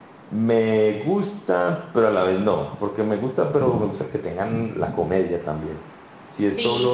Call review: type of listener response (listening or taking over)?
listening